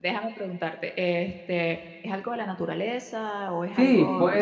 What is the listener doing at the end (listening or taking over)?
taking over